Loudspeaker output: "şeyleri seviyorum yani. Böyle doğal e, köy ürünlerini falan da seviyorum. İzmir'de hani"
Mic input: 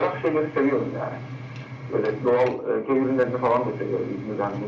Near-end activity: none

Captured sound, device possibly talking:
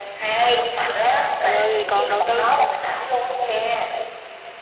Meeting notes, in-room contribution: present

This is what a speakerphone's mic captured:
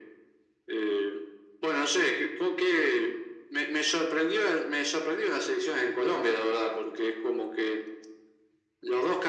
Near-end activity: none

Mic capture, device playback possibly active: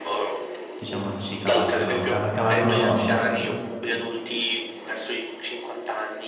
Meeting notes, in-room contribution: present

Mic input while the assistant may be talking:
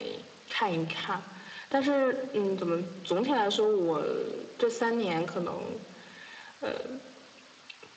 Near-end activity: none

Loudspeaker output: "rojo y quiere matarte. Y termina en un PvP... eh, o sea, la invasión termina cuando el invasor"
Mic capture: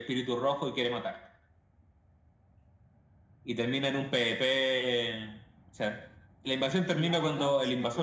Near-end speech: present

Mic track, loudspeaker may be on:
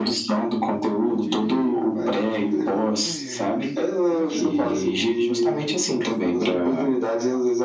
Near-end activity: present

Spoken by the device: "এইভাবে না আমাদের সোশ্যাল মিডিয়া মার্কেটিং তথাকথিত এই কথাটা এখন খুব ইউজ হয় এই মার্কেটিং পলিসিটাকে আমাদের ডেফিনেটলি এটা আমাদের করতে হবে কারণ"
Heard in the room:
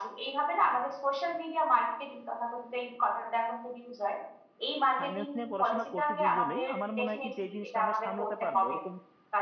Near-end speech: present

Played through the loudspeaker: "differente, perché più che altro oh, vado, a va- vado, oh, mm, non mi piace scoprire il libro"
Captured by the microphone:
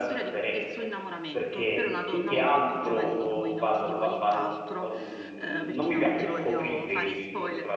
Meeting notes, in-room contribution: present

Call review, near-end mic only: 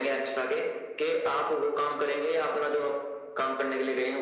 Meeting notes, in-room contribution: none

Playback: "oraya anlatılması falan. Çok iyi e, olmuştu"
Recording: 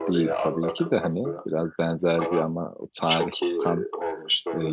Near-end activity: present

